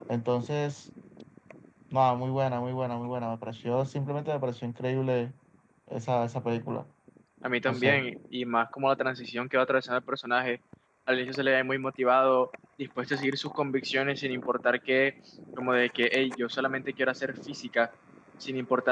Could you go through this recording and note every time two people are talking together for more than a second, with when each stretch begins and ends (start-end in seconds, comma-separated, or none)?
none